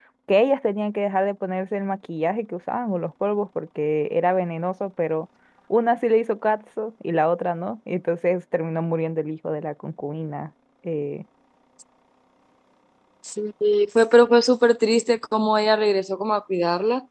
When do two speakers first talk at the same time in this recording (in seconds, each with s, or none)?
none